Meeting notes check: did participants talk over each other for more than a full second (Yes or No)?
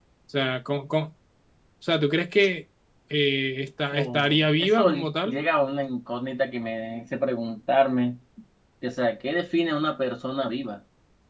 Yes